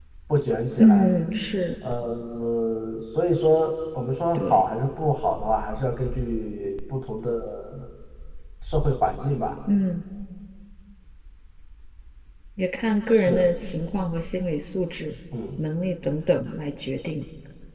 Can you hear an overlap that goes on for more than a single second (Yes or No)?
No